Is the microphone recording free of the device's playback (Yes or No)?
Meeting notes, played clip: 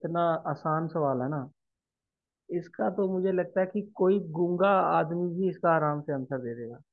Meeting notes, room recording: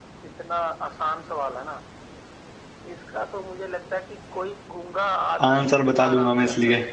No